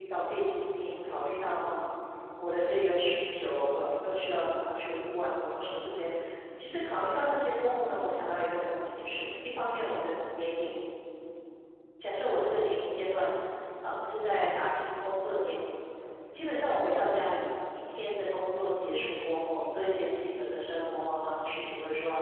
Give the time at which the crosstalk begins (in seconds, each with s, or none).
none